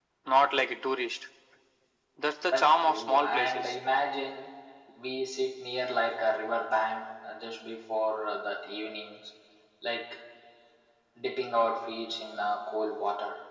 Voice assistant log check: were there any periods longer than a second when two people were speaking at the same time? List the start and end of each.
2.5-3.7

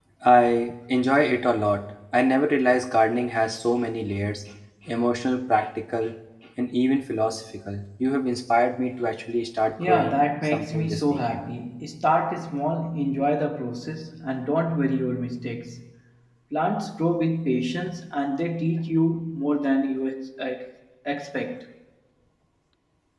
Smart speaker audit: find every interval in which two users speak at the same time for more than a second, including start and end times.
9.8-11.4

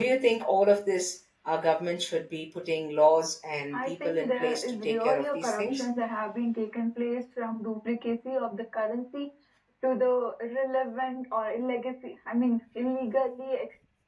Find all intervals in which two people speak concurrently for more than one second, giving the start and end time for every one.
3.7-5.8

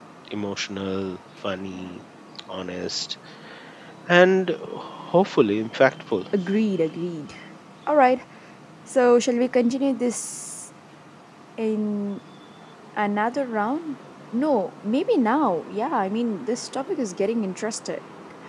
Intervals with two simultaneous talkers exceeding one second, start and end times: none

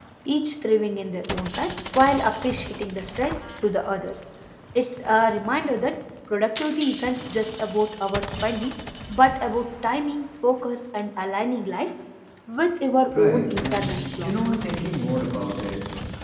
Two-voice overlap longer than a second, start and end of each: 13.1-14.3

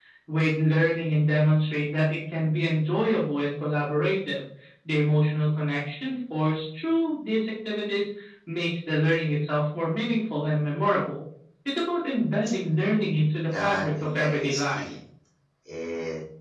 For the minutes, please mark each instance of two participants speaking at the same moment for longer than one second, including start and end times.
13.6-14.9

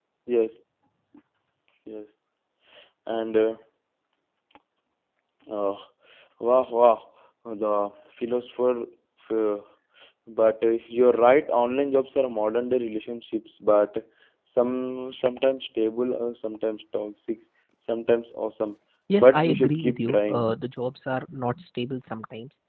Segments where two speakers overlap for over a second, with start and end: 19.2-20.5

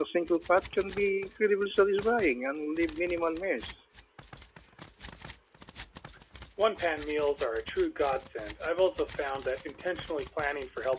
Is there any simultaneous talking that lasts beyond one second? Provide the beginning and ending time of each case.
none

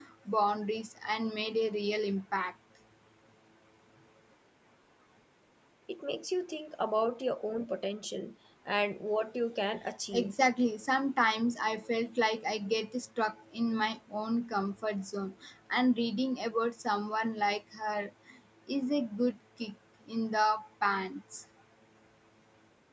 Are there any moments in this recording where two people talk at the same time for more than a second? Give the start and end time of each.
none

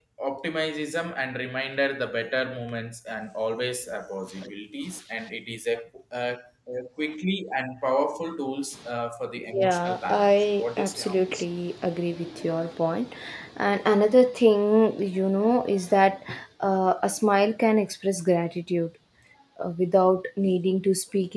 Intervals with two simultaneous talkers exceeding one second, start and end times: 9.5-11.4

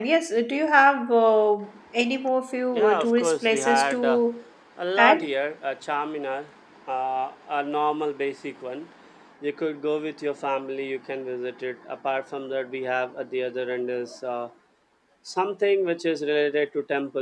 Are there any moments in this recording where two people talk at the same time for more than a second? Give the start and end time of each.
2.7-4.2

